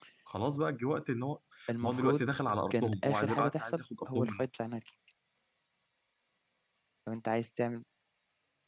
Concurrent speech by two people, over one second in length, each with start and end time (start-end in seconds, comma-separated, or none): 2.7-4.5